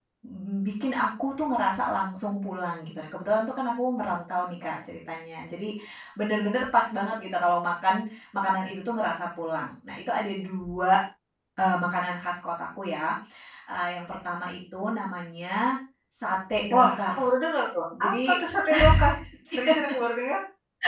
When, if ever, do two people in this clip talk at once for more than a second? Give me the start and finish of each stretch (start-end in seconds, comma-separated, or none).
none